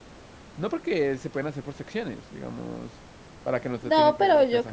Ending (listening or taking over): taking over